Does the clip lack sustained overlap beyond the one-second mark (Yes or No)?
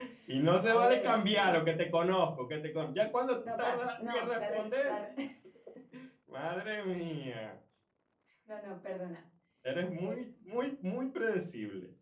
No